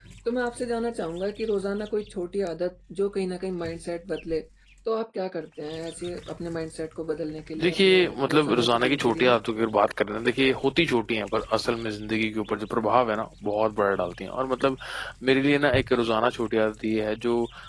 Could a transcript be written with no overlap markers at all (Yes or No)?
No